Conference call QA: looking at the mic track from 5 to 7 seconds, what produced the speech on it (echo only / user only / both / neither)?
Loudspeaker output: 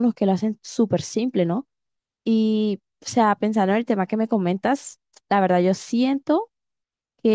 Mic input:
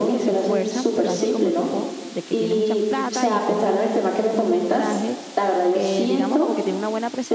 both